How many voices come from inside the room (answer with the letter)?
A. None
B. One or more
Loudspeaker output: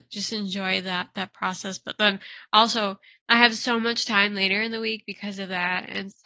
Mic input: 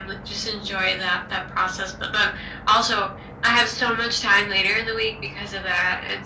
A